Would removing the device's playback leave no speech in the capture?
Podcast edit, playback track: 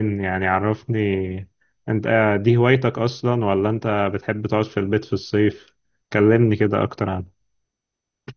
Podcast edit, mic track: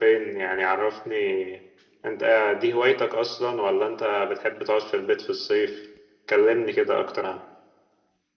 Yes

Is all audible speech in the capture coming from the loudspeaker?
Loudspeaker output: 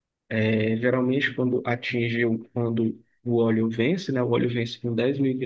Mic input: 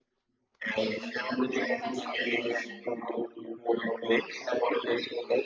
No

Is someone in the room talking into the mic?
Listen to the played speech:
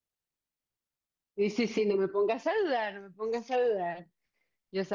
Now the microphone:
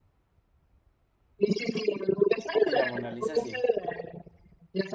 Yes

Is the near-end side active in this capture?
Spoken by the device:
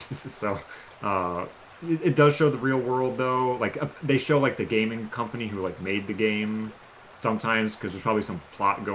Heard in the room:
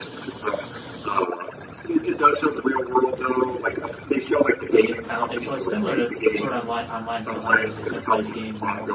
Yes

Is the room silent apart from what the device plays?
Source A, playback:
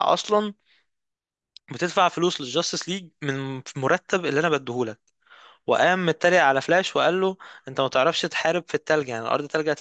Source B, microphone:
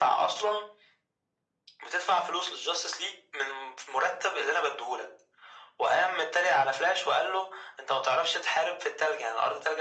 Yes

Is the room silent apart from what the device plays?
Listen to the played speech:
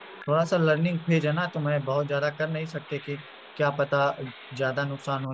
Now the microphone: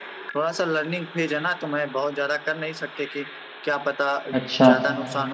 No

